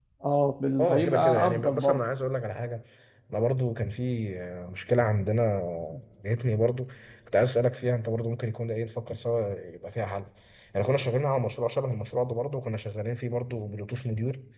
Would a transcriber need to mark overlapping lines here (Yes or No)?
Yes